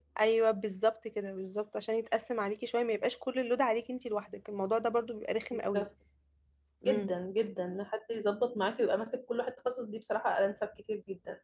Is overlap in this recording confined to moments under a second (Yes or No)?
Yes